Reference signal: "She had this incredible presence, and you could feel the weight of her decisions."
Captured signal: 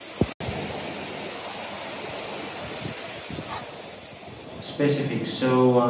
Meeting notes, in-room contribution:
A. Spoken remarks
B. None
A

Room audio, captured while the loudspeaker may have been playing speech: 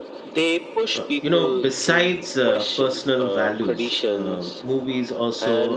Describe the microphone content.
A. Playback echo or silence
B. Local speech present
B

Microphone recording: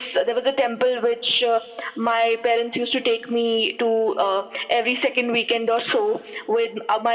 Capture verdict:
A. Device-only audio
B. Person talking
A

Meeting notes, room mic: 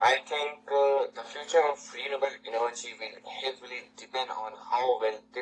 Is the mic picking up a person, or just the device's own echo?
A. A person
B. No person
B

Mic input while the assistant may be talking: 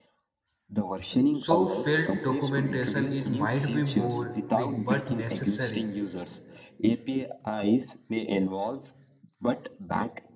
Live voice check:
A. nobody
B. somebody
B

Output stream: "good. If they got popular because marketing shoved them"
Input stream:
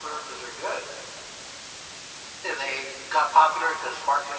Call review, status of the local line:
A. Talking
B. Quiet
B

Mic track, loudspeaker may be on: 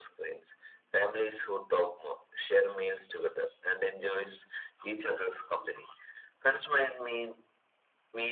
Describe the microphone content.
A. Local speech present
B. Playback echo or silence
B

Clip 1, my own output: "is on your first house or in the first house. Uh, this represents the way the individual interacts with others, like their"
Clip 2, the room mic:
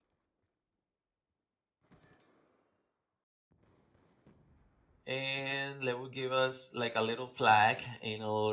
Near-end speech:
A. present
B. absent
A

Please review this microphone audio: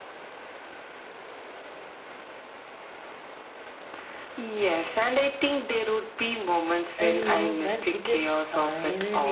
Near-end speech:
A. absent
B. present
B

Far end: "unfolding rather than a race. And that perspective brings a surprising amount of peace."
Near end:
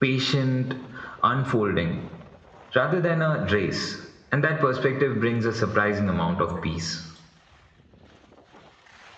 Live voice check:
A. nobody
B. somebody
A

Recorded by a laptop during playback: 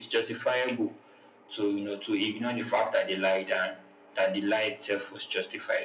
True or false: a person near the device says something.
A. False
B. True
A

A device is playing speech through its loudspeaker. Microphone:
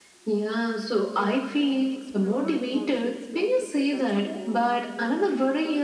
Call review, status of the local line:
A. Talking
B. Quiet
A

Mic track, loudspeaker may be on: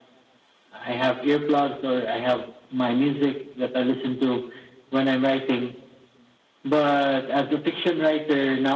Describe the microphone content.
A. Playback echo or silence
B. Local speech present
A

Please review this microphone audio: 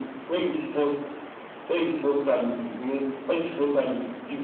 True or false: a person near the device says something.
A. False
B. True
A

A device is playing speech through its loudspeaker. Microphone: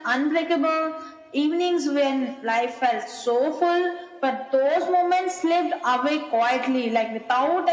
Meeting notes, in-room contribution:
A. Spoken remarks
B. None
B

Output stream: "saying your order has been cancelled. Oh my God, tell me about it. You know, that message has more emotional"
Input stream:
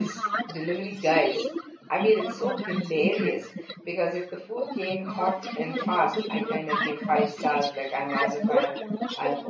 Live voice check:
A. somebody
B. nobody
A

